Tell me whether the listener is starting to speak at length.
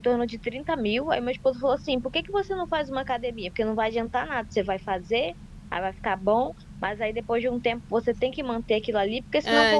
Yes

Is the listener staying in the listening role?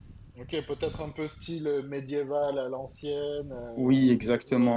No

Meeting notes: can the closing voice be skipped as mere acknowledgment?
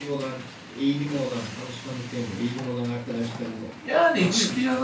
No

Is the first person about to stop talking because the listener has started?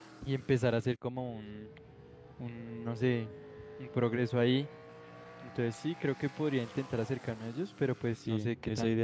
Yes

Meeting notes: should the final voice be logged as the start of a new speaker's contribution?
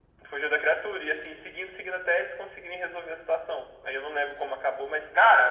No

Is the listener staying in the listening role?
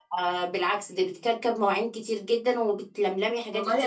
No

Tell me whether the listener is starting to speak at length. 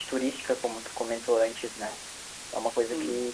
No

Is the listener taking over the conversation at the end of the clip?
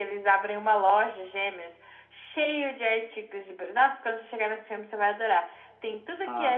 No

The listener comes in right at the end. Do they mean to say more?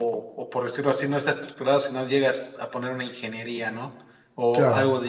No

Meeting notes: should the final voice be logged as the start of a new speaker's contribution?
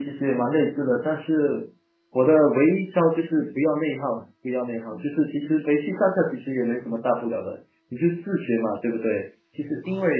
No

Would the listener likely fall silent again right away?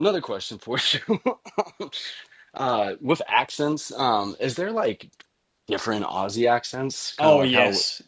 No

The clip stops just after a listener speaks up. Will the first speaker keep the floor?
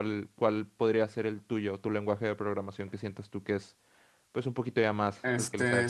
No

